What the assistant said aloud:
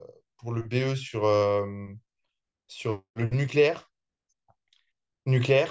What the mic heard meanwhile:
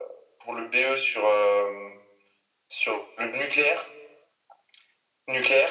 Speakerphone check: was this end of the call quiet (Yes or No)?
Yes